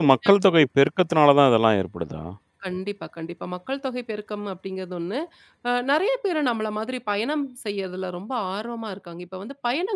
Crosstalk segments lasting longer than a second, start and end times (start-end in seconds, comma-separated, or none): none